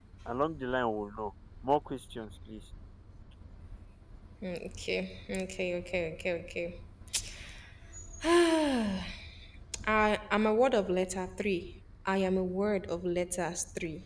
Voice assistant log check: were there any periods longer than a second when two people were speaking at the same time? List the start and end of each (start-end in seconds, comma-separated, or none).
none